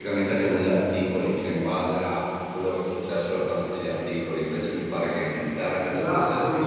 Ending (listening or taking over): taking over